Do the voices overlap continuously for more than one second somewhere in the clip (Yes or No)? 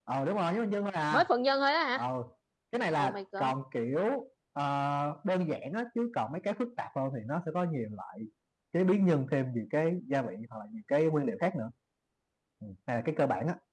No